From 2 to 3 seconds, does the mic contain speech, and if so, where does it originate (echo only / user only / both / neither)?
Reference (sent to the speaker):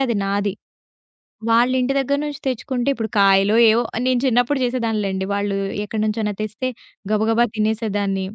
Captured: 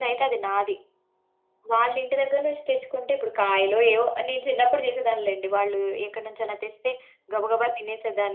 echo only